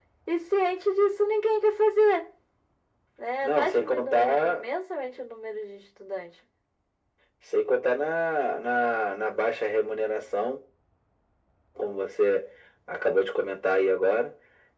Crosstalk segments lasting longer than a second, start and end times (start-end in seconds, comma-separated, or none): 3.4-4.6